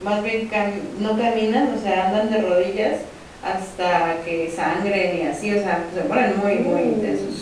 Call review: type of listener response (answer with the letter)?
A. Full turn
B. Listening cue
B